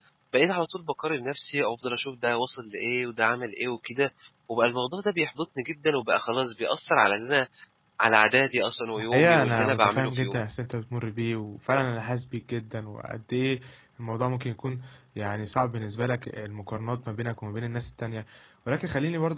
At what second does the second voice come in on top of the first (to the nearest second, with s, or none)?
9 s